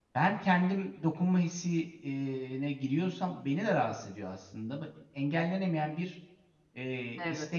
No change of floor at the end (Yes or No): Yes